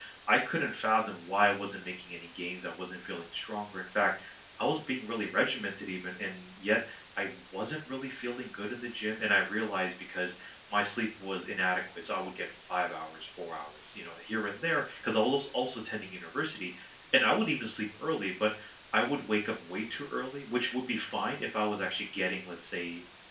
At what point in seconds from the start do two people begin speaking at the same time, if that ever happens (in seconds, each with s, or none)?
none